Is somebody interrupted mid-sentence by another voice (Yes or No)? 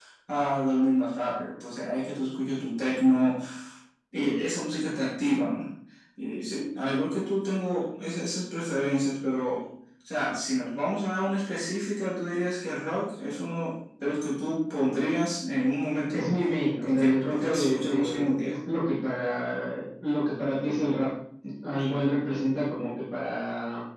Yes